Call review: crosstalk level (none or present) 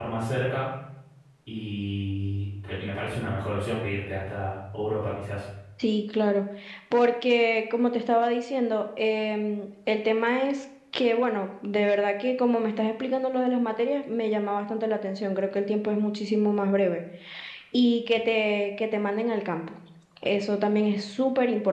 none